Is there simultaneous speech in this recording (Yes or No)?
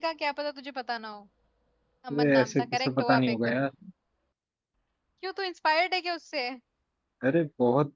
Yes